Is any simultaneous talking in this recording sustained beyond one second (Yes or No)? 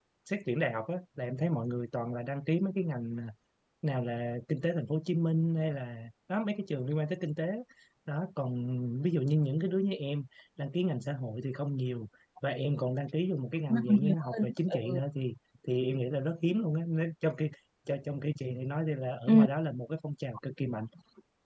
Yes